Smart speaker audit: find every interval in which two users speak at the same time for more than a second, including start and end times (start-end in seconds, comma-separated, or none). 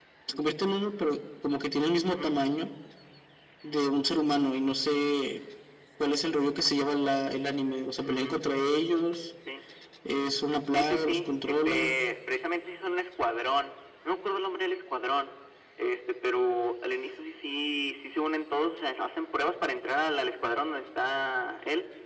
10.7-11.9